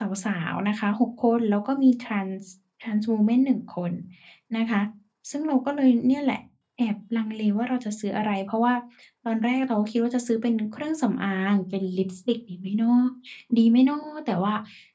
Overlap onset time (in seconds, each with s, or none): none